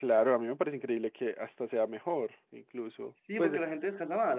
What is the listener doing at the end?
taking over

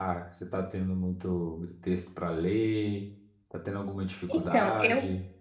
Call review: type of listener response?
taking over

